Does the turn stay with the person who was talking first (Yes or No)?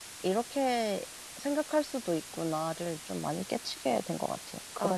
No